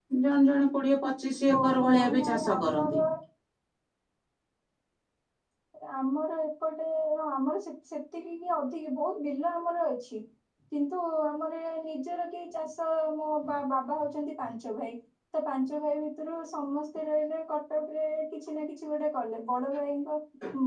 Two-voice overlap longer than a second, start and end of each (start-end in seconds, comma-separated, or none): 1.6-3.0